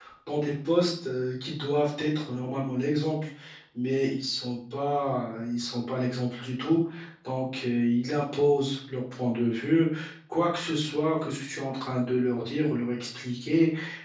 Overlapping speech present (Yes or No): No